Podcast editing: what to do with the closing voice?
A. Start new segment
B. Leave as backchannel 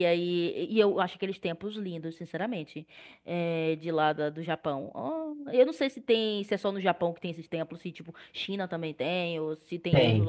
A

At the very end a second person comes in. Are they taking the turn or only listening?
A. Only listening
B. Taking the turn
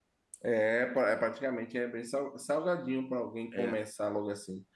A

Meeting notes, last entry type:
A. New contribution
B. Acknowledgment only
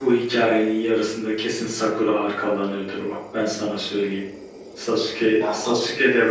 B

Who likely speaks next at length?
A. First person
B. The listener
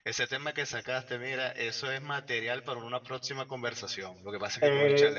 A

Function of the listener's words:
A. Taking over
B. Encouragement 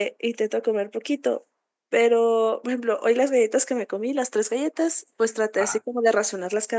B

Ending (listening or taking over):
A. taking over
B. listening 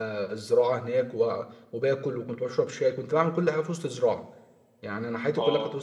B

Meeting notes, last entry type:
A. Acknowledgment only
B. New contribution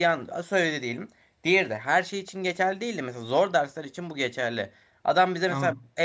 A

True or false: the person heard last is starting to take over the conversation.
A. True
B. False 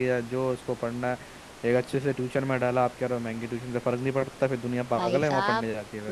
A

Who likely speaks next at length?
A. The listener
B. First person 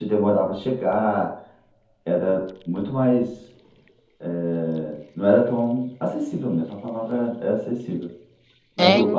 B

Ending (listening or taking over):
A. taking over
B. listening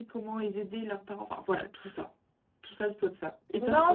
B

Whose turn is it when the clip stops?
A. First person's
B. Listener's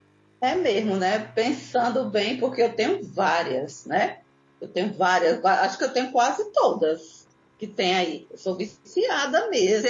B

